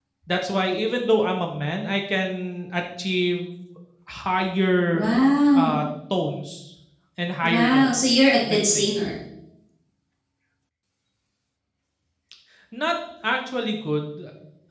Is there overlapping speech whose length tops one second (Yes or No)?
Yes